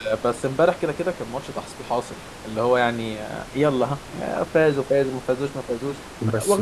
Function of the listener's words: taking over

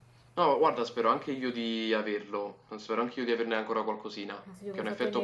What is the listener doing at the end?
taking over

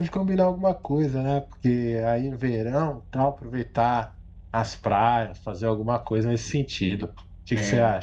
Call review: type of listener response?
taking over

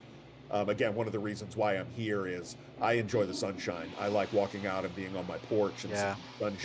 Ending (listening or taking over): taking over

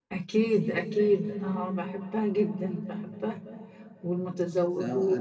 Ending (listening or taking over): taking over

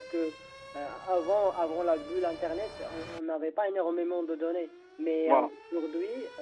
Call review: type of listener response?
listening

